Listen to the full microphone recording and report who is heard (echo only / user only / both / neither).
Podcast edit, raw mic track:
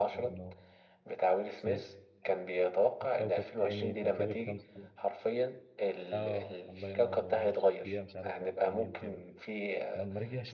both